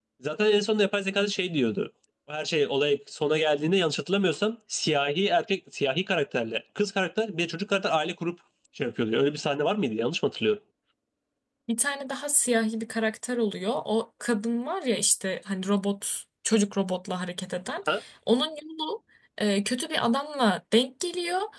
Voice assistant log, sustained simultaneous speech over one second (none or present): none